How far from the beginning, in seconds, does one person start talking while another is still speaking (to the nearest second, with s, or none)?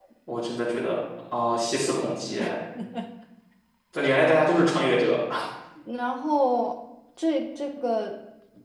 none